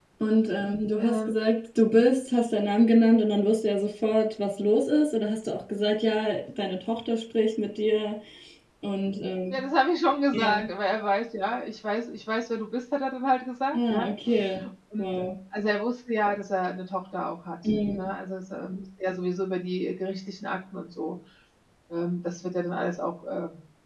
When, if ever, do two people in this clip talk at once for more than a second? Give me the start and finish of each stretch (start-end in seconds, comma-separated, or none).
none